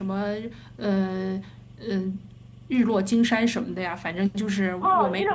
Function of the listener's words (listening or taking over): taking over